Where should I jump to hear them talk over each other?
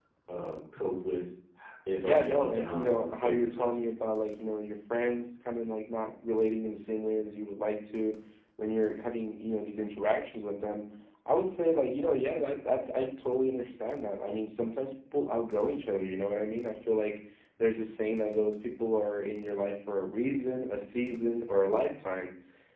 2.0 s

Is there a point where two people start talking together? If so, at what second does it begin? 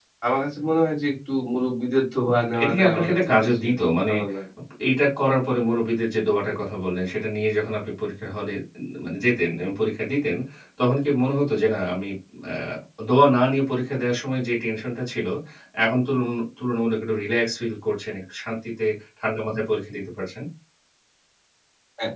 2.5 s

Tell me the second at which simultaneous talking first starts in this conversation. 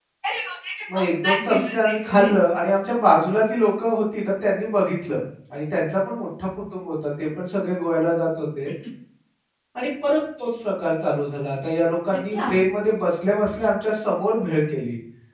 0.9 s

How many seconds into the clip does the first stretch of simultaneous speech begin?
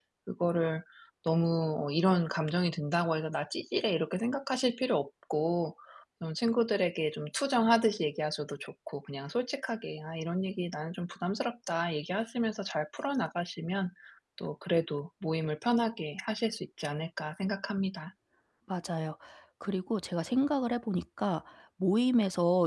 none

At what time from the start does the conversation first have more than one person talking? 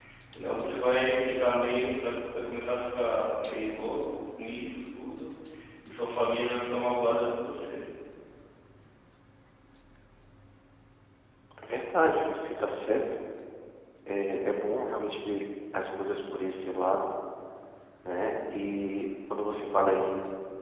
none

